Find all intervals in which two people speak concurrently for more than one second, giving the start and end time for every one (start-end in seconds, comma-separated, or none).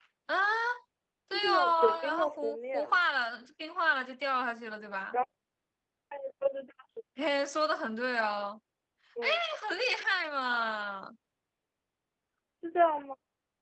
1.3-3.0